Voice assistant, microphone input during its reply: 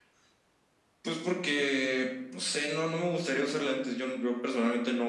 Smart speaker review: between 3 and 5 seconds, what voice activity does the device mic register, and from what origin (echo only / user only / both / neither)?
echo only